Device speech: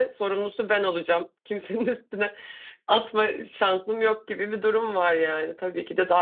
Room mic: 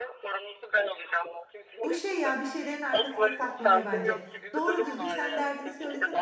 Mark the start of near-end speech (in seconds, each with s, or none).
1.8 s